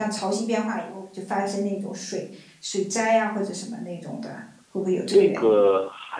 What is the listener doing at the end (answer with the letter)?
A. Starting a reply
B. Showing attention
A